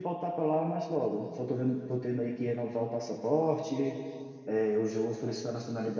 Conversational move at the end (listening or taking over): listening